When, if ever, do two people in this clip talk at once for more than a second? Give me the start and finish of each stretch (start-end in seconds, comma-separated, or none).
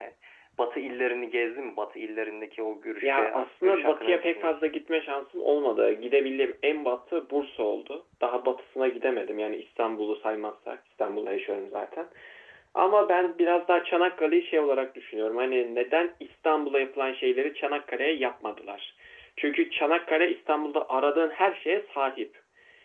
3.0-4.5